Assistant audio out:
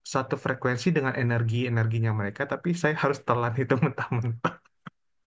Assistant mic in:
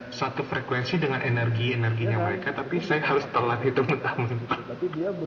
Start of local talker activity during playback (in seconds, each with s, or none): 2.0 s